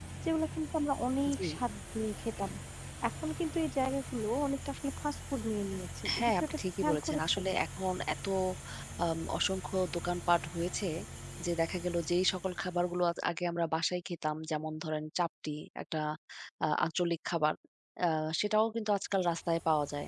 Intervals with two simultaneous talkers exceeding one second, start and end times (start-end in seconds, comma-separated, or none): 6.2-7.4